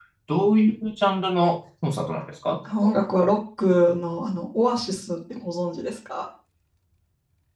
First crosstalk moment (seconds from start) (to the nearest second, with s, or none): none